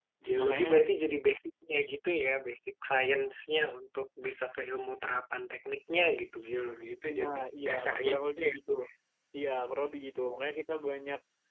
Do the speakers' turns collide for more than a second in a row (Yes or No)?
Yes